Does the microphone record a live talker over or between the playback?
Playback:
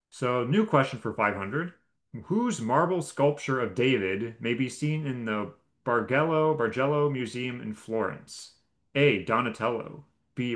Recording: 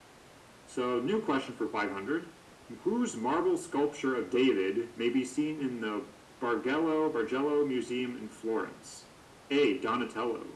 No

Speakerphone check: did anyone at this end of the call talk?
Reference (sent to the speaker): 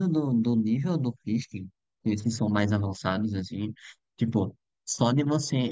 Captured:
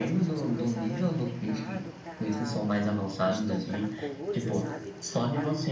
Yes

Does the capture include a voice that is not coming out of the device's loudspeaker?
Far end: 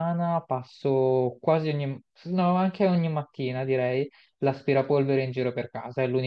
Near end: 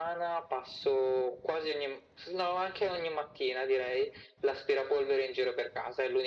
No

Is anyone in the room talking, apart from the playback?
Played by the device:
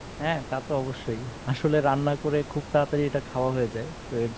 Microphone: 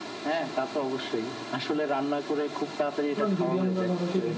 Yes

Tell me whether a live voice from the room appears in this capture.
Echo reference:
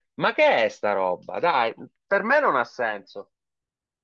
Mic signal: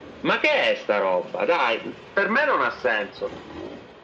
No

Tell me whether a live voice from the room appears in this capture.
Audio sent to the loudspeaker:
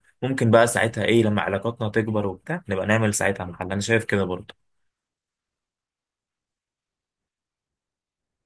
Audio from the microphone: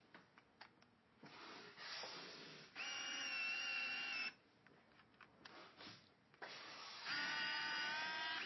No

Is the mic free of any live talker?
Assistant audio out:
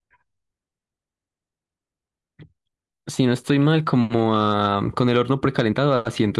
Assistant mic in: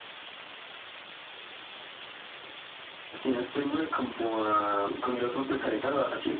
Yes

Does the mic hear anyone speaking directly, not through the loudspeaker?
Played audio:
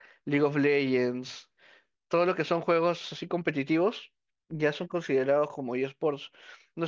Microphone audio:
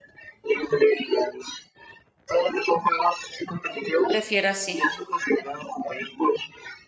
Yes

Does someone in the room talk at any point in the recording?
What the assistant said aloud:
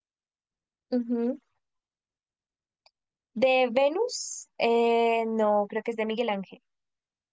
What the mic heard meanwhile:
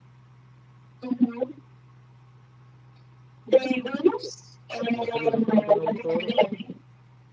Yes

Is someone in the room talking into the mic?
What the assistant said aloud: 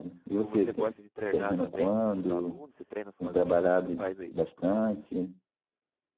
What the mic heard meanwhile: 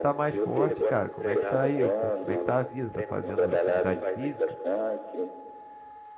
Yes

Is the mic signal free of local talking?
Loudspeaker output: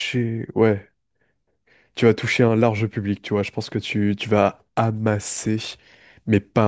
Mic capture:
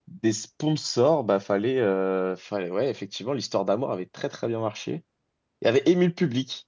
No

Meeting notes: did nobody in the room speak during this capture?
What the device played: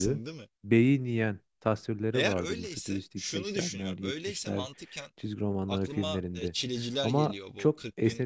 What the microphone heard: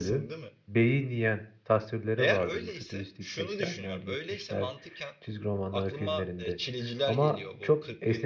Yes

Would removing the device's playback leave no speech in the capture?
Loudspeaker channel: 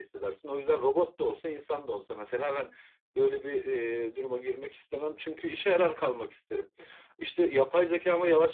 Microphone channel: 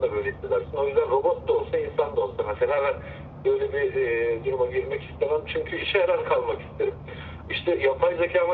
Yes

